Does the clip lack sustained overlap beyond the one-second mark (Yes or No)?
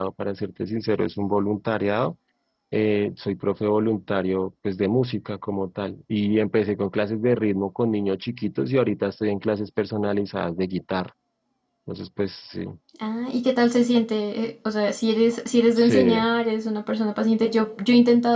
Yes